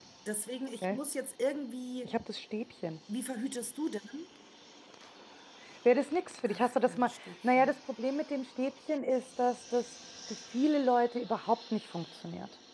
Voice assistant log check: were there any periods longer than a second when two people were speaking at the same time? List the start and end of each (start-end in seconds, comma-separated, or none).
6.5-7.7